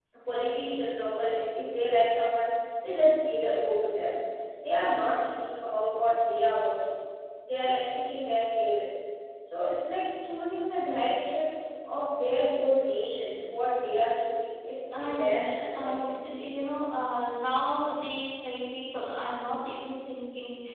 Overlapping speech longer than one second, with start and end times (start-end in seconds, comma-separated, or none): 15.0-16.4